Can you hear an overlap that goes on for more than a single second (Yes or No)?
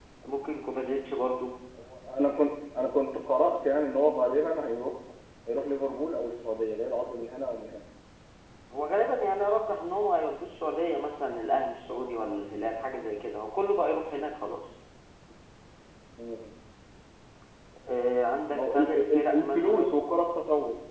Yes